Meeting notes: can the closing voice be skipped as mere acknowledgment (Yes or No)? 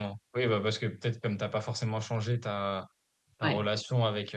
Yes